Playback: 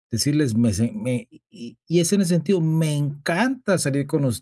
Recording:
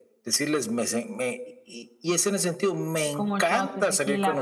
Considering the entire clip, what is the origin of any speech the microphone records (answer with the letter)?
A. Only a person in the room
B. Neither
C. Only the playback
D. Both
D